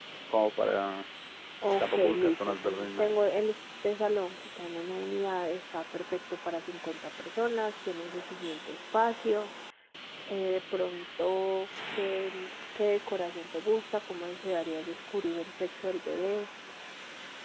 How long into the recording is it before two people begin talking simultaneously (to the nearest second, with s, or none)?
2 s